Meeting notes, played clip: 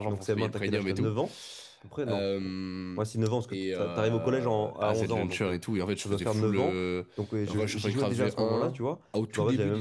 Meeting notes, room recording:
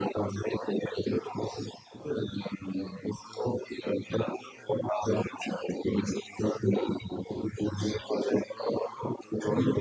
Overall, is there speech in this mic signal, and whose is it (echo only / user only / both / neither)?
echo only